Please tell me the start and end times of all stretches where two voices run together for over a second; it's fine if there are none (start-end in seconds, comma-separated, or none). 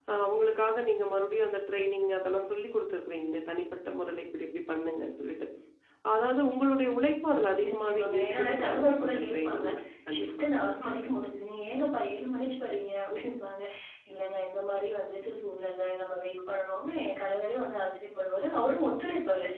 7.7-9.7